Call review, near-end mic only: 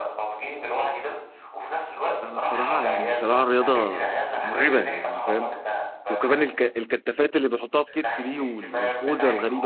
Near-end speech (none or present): present